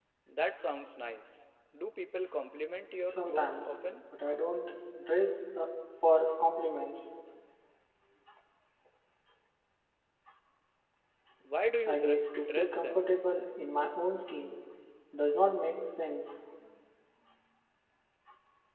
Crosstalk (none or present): present